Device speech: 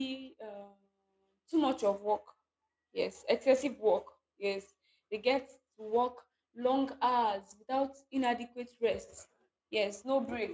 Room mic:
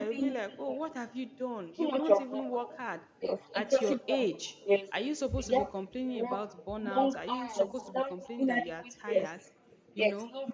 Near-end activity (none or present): present